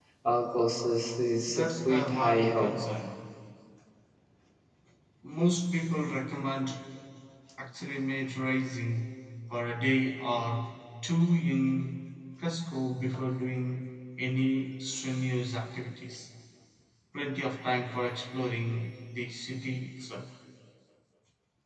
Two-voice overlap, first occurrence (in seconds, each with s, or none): 1.5 s